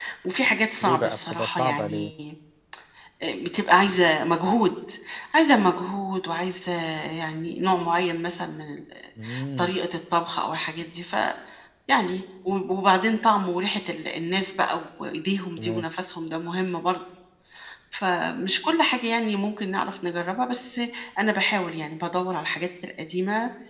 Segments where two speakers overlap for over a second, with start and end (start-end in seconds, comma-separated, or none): 0.8-2.1